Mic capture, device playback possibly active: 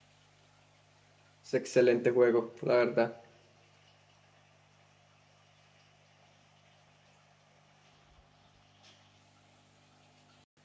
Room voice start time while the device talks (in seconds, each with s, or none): 1.4 s